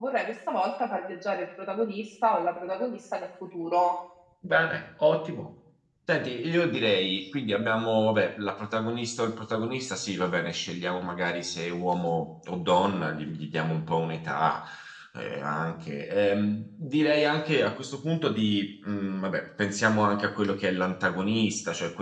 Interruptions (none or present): none